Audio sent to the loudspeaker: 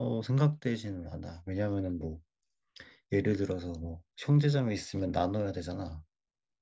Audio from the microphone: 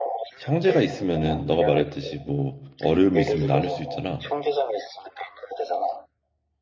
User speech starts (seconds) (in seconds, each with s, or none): 0.4 s